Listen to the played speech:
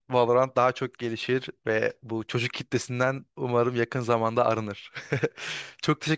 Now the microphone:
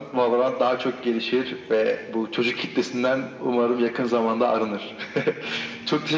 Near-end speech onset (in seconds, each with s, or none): none